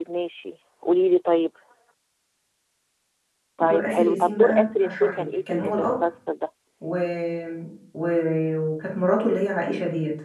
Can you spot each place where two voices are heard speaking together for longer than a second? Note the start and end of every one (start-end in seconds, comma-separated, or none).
3.6-6.0